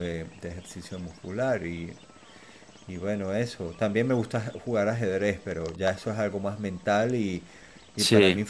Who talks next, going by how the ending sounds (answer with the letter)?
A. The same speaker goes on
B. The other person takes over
A